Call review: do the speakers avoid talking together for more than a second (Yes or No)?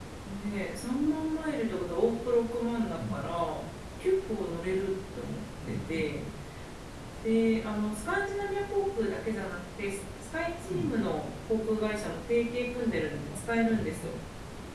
No